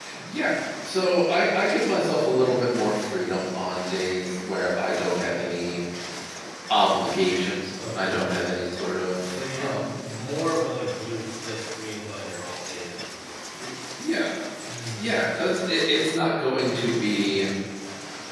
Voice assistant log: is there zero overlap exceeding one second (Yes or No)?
Yes